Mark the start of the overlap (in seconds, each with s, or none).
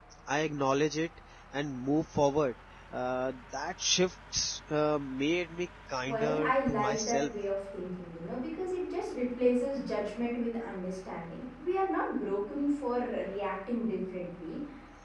6.1 s